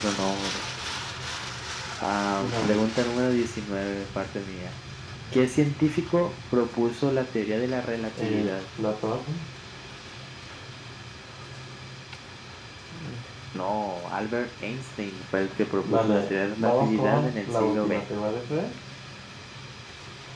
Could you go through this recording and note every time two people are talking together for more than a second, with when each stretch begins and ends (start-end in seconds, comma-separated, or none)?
15.8-18.0